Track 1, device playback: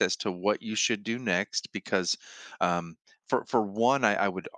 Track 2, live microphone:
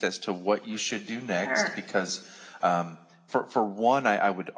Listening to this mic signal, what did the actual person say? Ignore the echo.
Er,

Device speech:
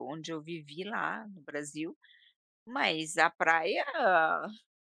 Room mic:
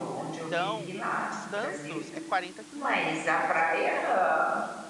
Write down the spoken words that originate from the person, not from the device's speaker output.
Então, Santos é 40 quilômetros dali.

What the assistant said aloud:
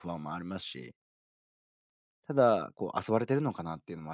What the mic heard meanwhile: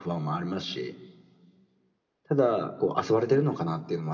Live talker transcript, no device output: none

